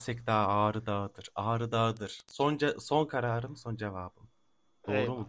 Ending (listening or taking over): taking over